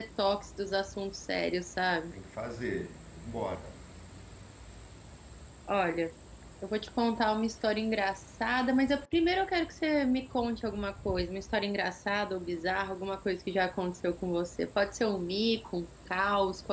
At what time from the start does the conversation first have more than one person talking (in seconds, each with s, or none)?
none